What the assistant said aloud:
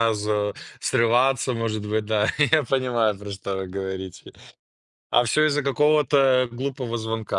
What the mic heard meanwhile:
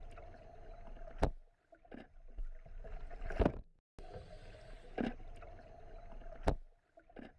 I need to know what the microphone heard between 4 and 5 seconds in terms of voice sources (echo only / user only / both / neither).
neither